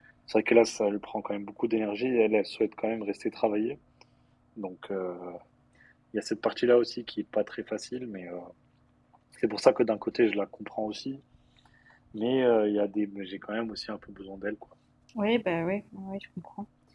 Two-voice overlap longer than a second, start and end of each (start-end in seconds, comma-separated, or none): none